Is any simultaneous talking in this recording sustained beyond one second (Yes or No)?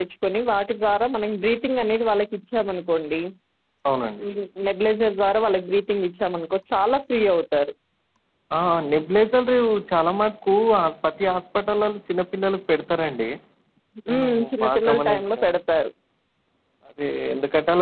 Yes